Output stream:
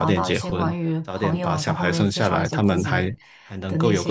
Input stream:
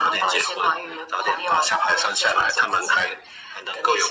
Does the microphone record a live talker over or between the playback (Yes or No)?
No